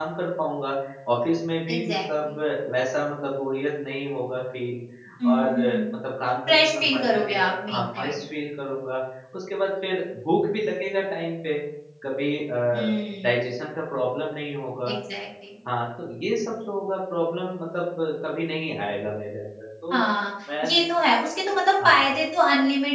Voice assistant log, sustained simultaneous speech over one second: present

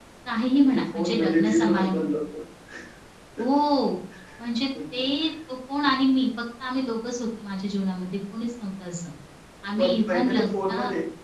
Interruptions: present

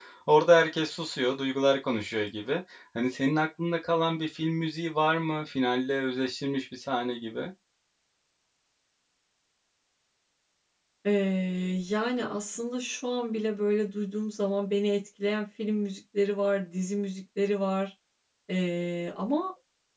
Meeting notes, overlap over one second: none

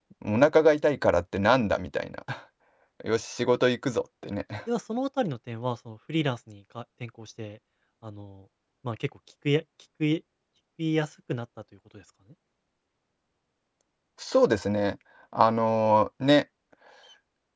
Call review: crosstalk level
none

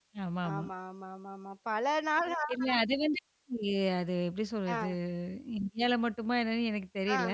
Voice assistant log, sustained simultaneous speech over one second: none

